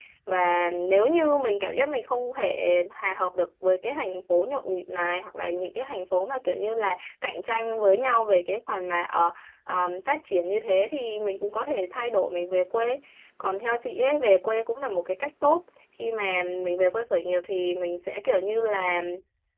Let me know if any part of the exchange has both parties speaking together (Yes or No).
No